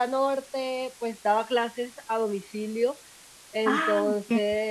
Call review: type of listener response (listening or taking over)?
listening